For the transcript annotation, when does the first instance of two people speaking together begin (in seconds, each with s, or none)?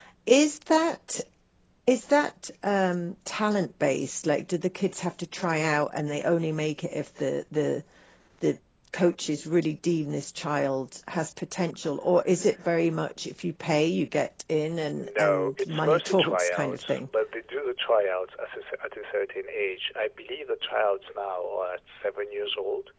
15.0 s